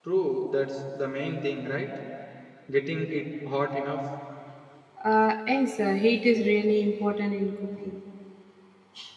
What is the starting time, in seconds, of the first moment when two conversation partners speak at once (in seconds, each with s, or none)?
none